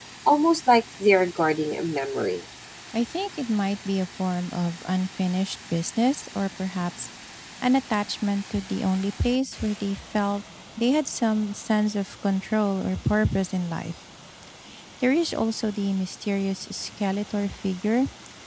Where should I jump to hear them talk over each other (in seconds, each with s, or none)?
none